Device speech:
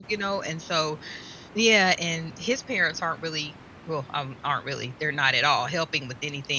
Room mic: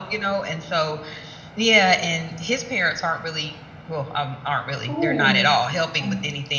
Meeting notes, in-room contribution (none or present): present